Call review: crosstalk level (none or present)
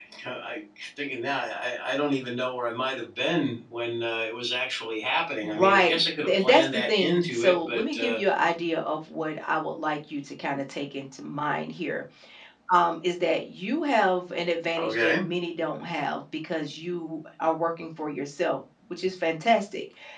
present